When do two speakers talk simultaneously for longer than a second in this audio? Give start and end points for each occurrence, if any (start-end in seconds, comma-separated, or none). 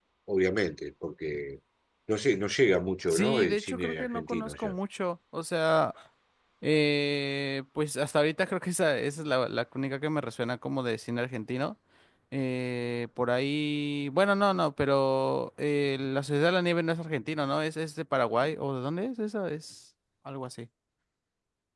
3.1-4.7